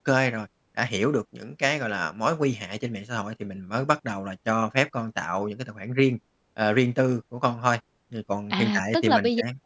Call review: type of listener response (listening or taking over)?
taking over